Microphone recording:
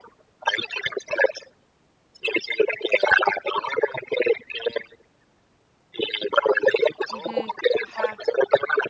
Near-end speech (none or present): present